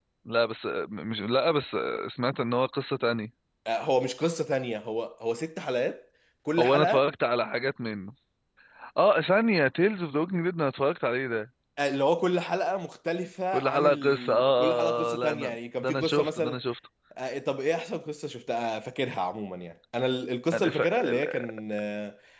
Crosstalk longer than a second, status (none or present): present